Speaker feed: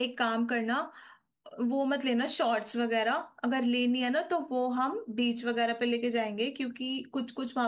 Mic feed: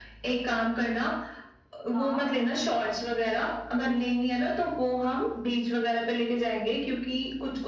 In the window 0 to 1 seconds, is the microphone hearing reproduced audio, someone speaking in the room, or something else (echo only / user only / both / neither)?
echo only